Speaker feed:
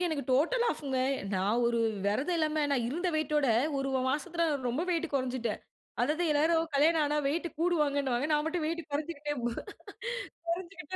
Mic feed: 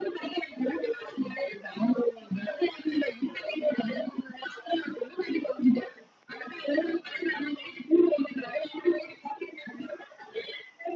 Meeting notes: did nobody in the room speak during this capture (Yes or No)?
Yes